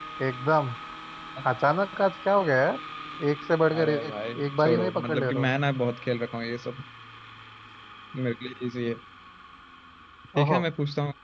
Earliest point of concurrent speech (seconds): 3.7 s

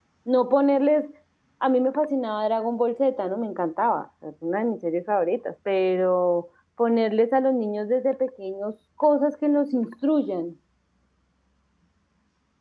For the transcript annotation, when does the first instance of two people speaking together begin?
none

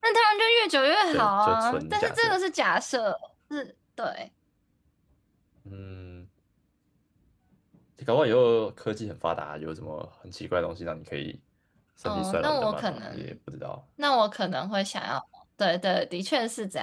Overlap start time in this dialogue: 1.1 s

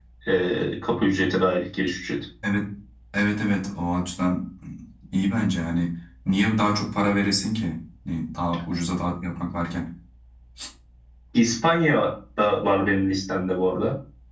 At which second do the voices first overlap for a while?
none

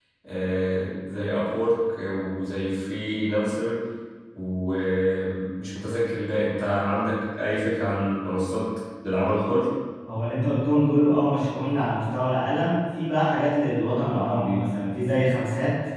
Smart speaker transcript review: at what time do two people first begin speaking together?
none

